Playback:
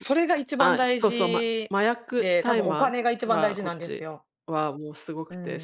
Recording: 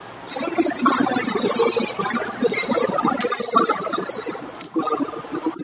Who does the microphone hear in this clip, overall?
echo only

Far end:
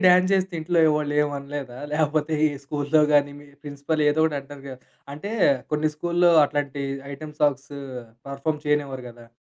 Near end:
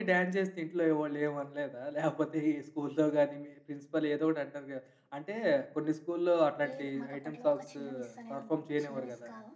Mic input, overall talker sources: both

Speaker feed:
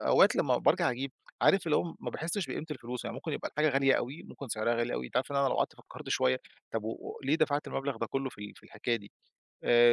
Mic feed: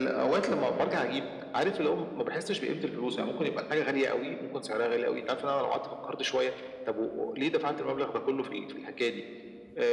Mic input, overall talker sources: echo only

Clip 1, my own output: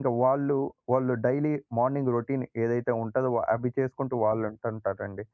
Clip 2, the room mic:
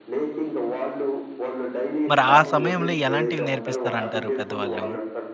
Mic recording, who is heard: both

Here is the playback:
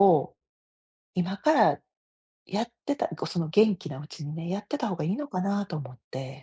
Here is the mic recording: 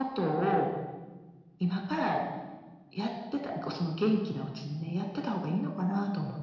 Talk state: echo only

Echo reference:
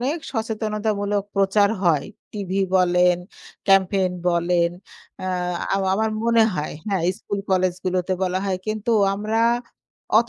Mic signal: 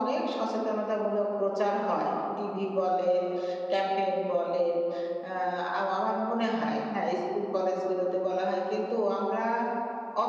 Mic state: echo only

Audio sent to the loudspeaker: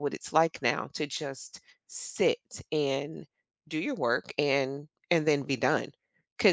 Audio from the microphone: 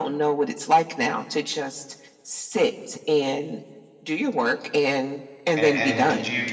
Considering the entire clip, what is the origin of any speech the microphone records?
both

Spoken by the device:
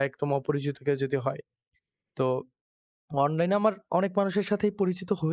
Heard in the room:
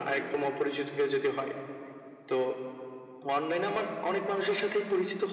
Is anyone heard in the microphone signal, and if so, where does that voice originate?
echo only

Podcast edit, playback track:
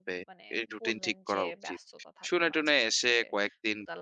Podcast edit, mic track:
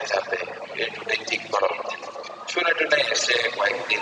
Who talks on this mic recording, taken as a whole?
echo only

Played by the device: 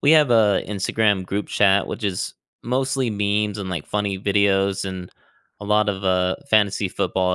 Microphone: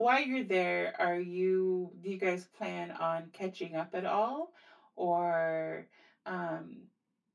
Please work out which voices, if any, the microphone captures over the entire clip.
user only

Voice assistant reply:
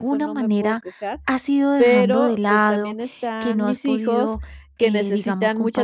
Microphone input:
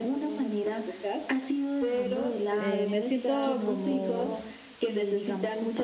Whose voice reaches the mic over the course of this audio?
both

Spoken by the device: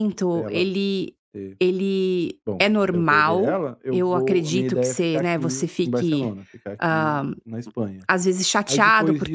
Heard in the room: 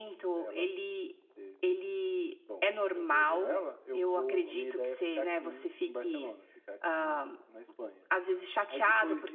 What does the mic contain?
echo only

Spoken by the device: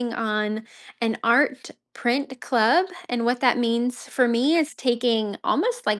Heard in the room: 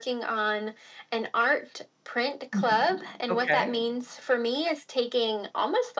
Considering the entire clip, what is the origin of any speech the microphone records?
both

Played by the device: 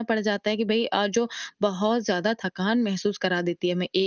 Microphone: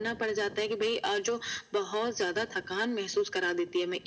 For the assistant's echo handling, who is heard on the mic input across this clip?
echo only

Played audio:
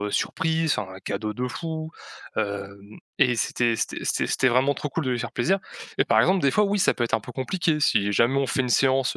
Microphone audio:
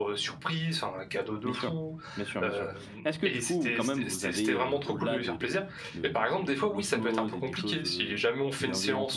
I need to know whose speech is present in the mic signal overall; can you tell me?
both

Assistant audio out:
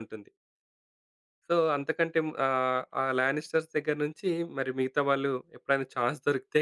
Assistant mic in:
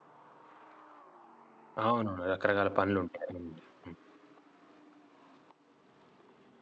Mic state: user only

